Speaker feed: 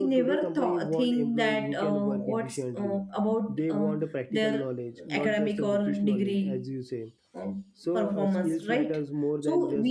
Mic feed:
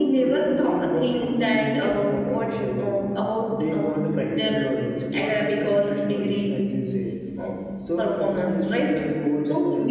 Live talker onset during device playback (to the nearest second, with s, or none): none